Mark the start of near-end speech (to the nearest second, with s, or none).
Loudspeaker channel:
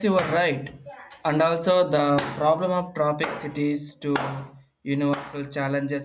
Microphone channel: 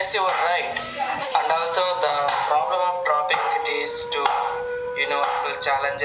none